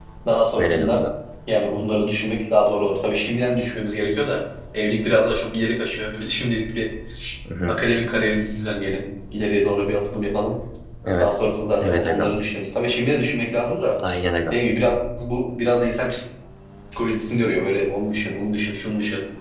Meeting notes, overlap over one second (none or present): none